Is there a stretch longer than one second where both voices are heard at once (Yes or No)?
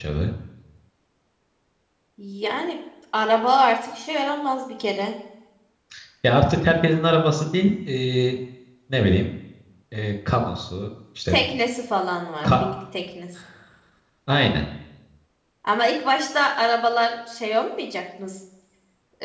No